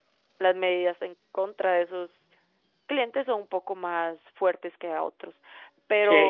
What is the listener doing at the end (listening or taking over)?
taking over